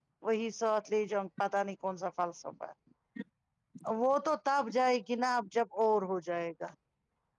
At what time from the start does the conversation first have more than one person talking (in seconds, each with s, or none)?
none